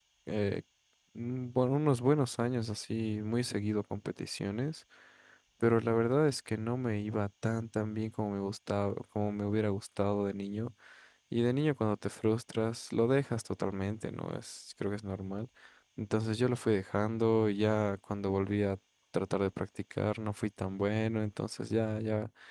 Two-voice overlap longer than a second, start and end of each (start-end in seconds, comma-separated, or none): none